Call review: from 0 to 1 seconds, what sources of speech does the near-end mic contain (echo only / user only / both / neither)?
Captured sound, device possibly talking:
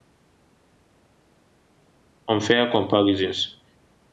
neither